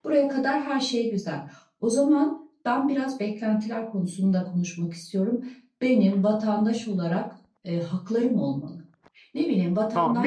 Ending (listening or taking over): taking over